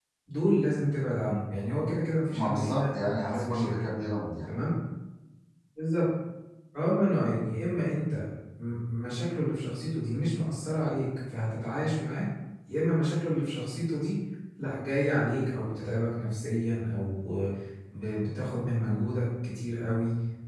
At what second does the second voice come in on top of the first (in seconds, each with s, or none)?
2.3 s